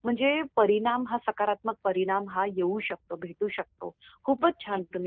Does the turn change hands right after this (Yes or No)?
No